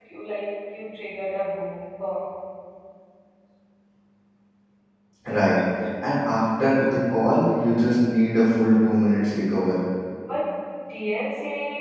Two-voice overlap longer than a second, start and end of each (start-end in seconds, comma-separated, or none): none